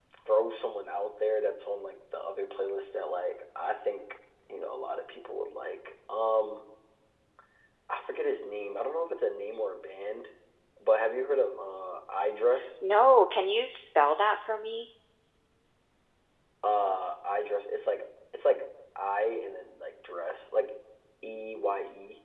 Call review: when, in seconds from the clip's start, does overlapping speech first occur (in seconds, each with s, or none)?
none